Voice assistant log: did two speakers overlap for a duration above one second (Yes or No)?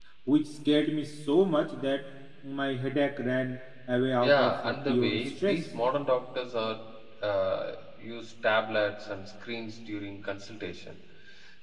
Yes